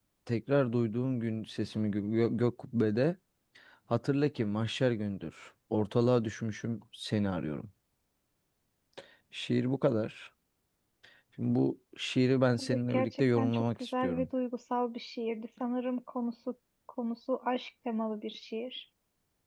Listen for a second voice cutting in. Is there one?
Yes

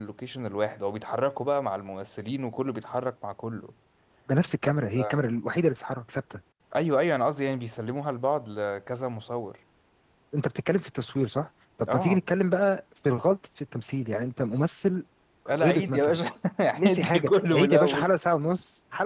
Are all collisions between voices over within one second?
No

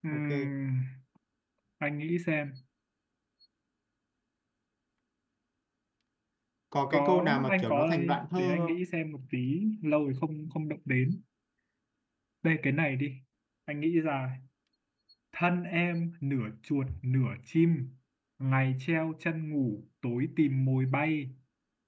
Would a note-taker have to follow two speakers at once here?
Yes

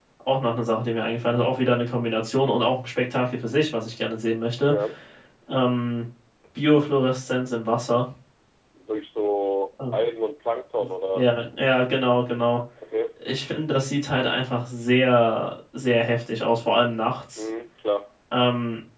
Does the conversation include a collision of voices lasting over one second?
No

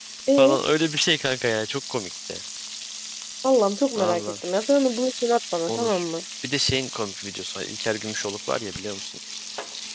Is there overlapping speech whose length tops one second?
No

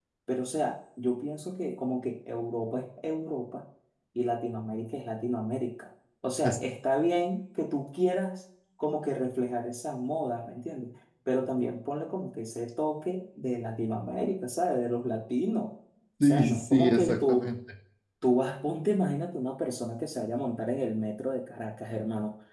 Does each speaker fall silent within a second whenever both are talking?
No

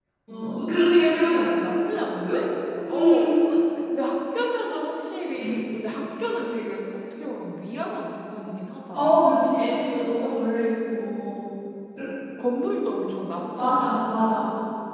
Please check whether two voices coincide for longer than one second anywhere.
No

